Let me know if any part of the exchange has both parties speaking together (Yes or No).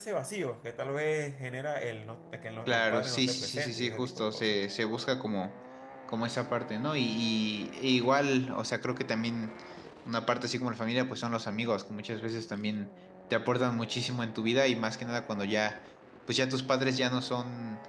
Yes